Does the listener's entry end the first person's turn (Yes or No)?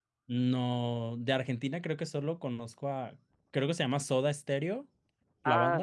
Yes